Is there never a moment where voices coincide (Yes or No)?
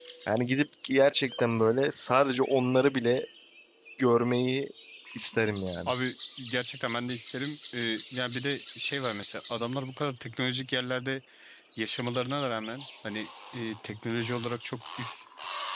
Yes